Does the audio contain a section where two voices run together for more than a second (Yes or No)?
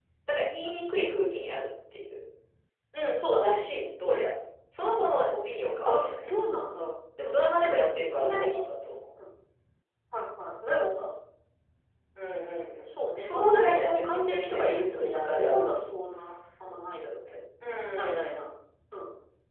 Yes